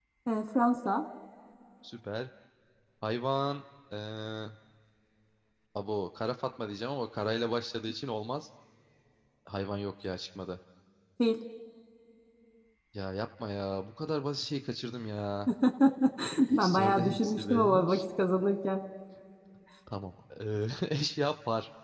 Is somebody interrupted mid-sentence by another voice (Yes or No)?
Yes